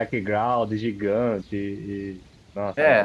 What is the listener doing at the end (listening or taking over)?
taking over